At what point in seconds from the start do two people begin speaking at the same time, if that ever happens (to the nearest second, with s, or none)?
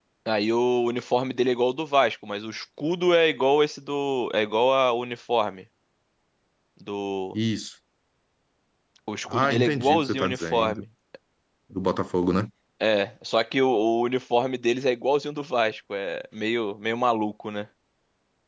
9 s